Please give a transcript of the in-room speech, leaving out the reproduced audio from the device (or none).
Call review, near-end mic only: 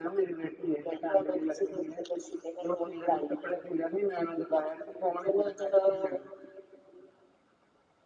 none